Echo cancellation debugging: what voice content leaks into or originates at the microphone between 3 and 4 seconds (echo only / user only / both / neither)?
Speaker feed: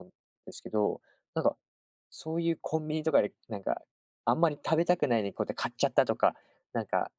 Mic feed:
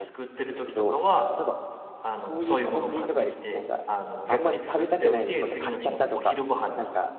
both